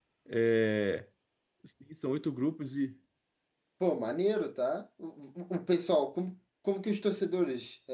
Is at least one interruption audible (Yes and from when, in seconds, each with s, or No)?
No